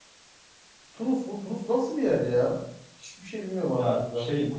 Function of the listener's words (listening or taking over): taking over